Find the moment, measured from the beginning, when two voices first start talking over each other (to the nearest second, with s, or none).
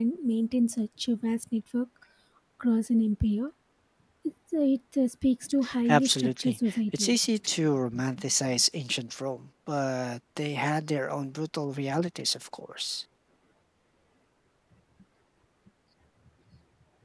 6 s